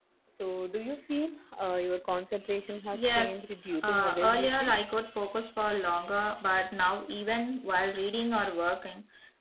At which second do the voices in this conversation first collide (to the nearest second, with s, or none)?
3 s